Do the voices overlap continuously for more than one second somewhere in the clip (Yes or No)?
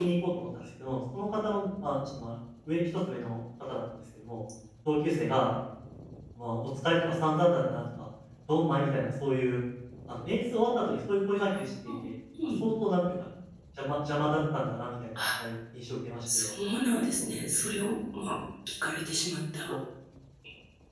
No